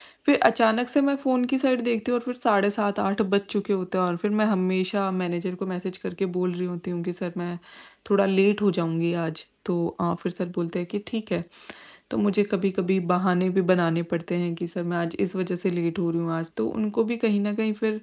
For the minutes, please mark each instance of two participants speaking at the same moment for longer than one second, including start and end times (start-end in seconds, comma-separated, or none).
none